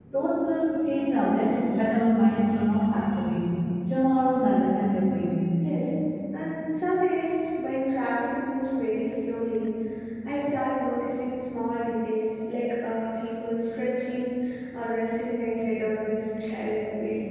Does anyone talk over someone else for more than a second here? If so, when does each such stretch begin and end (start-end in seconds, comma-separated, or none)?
none